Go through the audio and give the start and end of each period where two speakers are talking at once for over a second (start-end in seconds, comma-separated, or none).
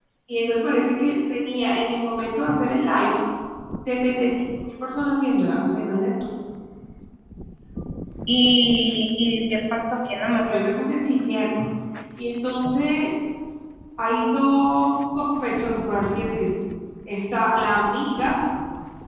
none